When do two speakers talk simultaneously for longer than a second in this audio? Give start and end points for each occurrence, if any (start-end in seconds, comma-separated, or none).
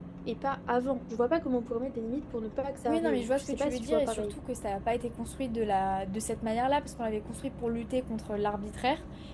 2.9-4.3